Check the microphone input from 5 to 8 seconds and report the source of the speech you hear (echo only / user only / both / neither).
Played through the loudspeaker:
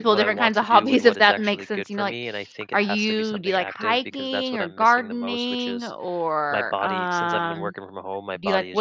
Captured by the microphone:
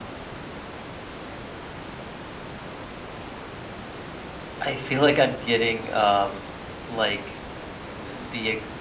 user only